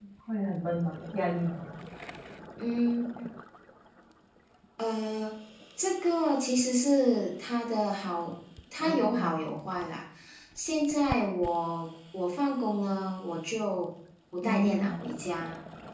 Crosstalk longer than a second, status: none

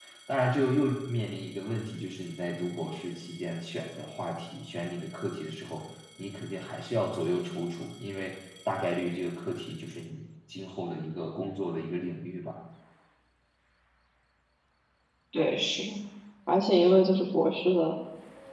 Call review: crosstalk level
none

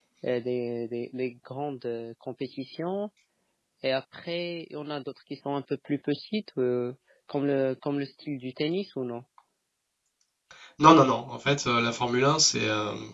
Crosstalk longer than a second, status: none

